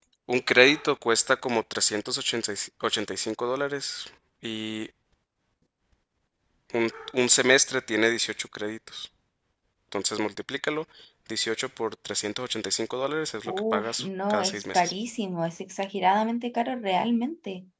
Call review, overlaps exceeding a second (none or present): present